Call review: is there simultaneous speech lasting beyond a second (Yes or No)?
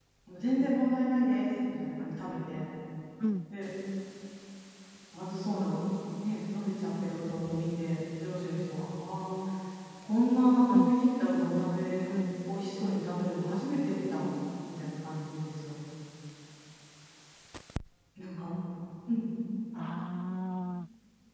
No